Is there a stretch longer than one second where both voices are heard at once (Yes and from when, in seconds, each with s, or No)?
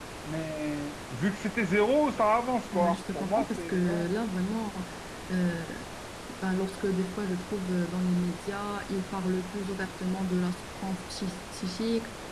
Yes, from 2.7 s